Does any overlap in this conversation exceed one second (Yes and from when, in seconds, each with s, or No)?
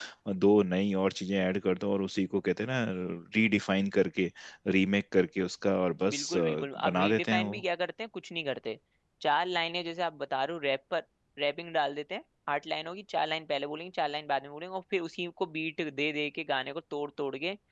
Yes, from 6.1 s